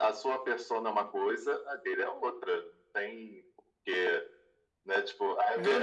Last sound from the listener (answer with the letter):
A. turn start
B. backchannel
A